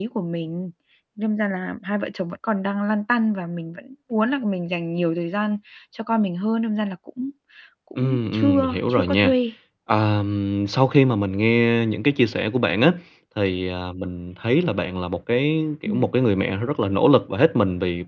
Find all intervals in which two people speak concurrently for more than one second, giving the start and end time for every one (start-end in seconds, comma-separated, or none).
8.0-9.3